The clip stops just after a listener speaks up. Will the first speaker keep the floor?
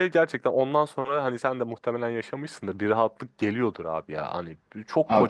Yes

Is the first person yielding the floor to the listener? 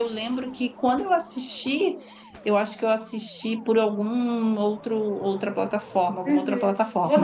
Yes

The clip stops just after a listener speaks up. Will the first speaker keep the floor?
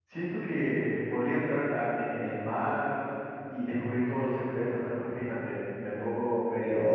Yes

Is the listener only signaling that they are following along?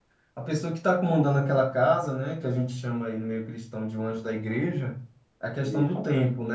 Yes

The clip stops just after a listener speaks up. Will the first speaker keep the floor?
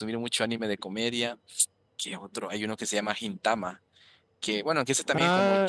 No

